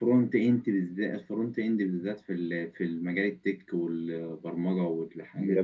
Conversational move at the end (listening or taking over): taking over